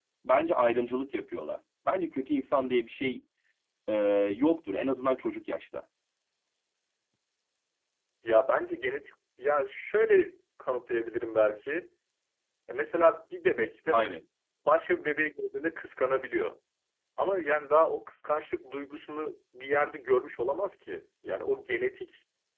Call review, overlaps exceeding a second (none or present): none